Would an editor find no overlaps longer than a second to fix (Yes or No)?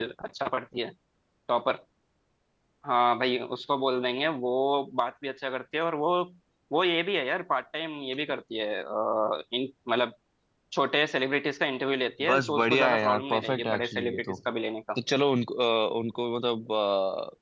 No